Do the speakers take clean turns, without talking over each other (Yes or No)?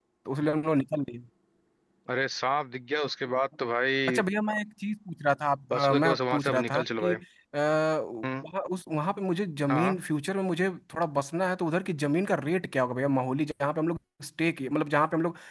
No